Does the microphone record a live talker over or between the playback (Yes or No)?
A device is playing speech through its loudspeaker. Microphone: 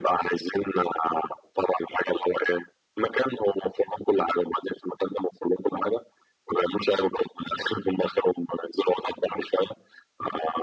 No